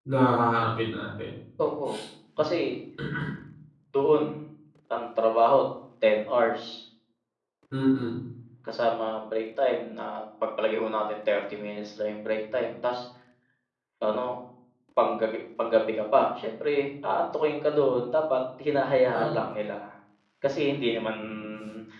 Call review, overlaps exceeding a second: none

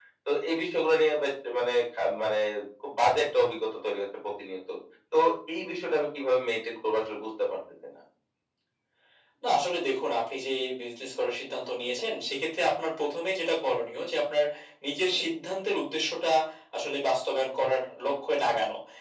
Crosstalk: none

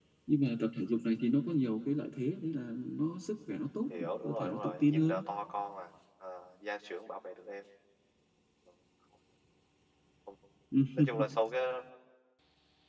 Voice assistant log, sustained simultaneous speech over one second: present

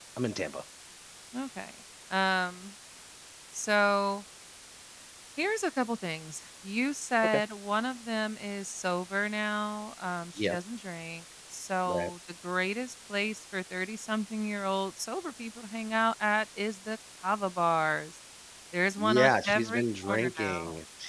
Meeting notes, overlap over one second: present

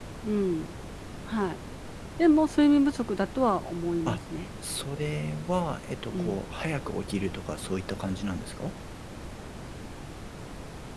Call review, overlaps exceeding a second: none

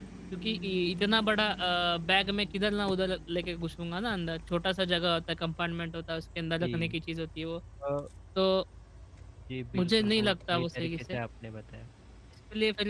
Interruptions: present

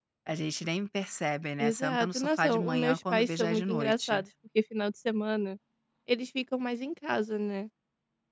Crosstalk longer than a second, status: present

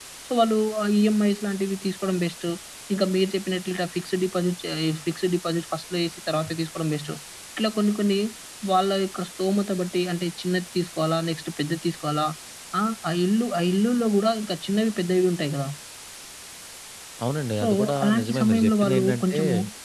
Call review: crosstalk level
present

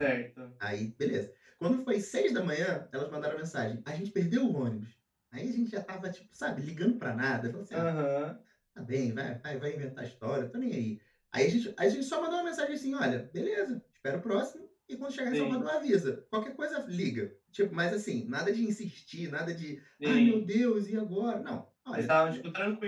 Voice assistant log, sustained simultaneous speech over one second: none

